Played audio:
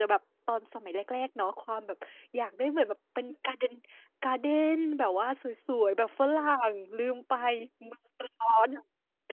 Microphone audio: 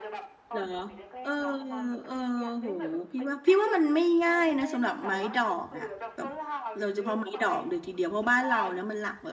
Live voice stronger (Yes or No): Yes